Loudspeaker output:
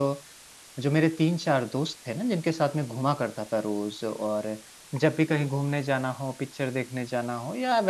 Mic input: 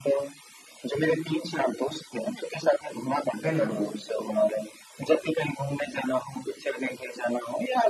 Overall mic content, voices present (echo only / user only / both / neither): both